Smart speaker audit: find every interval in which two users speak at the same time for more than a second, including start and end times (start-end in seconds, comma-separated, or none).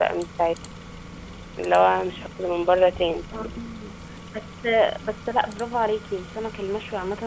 none